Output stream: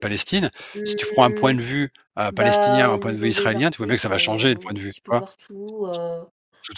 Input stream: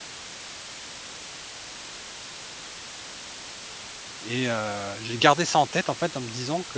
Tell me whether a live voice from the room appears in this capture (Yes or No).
Yes